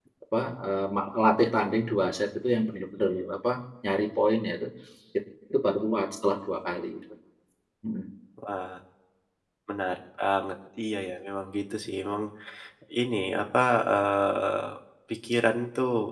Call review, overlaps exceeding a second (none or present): none